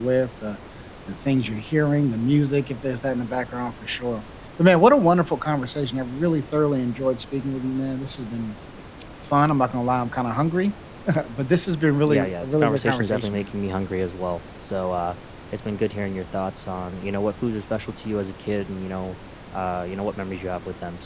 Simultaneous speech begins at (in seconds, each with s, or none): 12.1 s